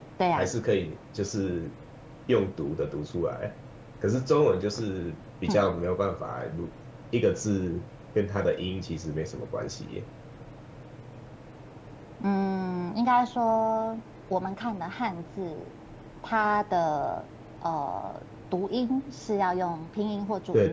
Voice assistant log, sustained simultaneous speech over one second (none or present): none